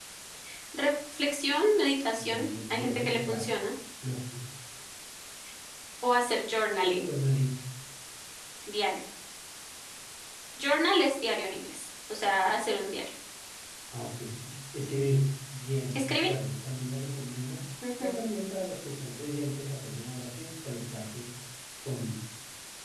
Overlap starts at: 2 s

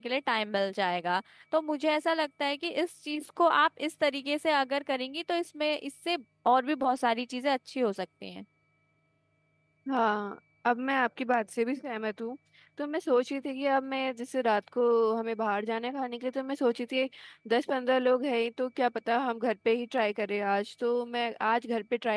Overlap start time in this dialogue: none

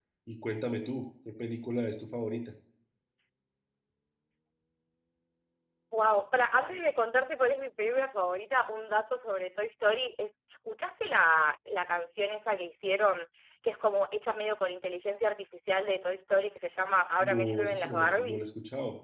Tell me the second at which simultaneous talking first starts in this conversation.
17 s

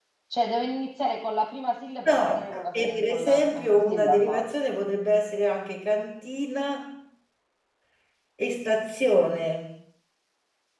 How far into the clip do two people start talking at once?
2 s

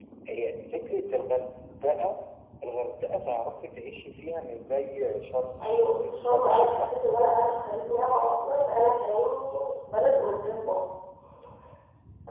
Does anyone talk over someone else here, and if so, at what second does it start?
6 s

